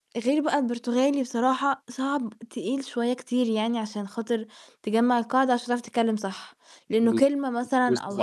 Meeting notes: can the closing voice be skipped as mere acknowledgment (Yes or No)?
No